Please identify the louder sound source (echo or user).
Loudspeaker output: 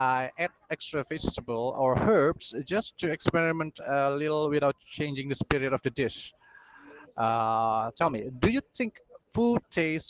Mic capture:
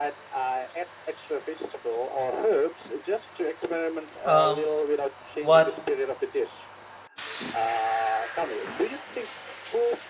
user